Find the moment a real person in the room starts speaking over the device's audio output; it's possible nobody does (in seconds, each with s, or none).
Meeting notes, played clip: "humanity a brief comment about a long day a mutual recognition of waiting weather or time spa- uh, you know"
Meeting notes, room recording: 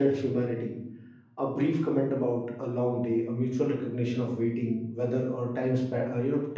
none